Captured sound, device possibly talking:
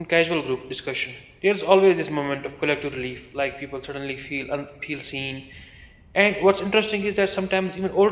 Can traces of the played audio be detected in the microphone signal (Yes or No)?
No